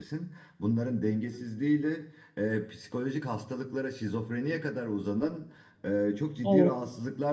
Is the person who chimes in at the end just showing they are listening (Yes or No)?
Yes